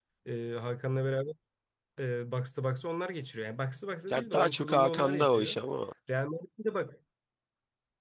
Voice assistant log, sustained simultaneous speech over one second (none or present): present